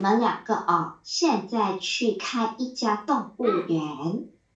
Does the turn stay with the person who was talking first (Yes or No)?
Yes